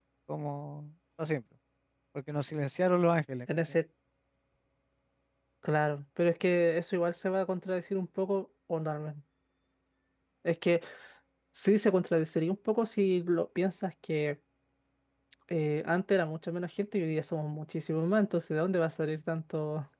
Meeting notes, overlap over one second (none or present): none